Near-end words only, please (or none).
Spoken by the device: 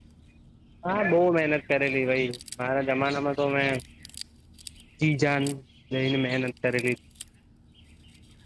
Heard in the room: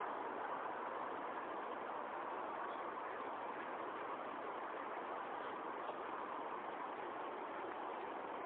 none